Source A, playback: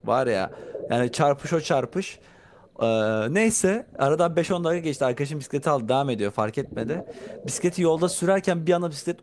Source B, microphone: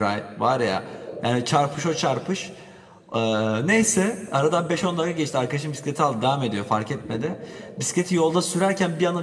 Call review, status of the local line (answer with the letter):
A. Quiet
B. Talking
A